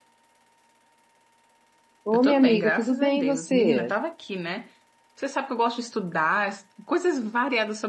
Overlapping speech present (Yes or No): Yes